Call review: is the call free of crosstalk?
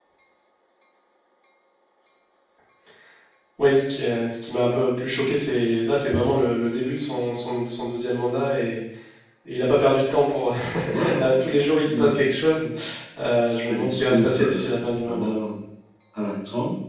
No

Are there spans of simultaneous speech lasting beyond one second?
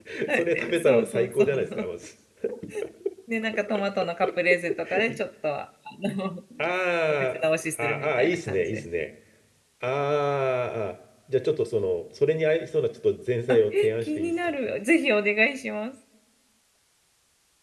Yes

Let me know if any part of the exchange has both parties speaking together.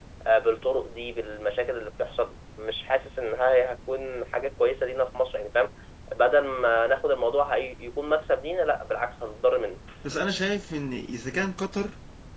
No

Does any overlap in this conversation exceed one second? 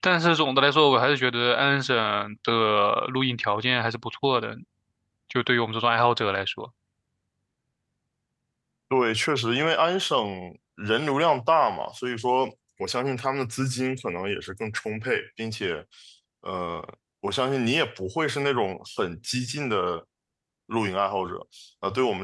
No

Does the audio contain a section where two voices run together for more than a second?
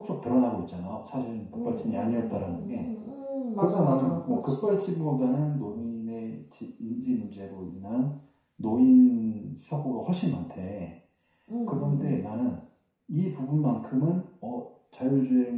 Yes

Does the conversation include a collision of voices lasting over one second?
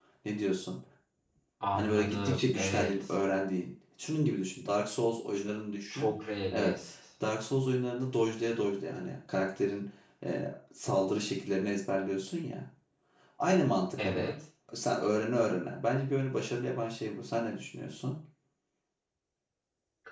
Yes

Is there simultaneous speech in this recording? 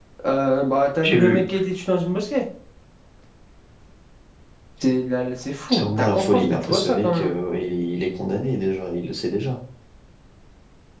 Yes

